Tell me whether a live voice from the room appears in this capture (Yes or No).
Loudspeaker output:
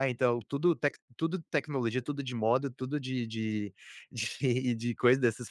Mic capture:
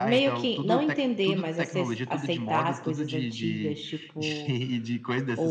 Yes